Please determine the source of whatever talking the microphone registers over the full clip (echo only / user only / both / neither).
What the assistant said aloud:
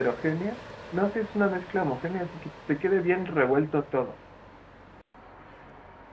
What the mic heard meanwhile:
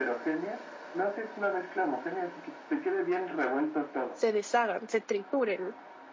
both